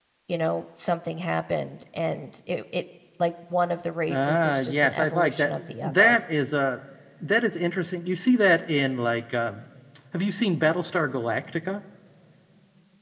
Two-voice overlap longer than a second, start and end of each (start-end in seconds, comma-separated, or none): 4.1-6.2